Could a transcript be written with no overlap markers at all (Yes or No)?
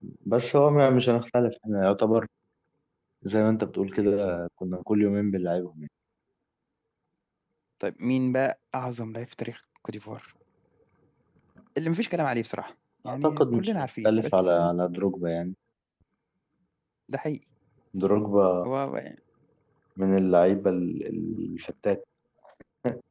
No